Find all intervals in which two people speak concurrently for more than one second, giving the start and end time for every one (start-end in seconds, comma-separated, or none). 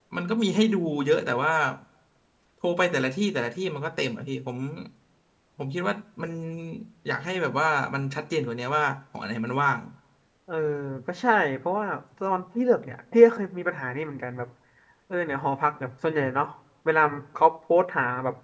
none